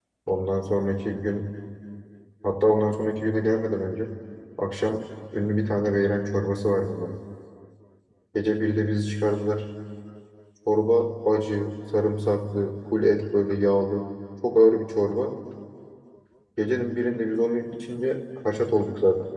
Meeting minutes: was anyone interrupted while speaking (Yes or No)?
No